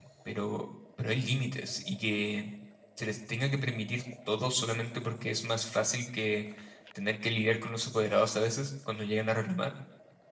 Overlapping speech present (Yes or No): No